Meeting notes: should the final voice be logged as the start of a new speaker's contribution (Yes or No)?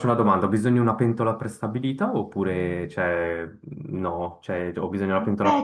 Yes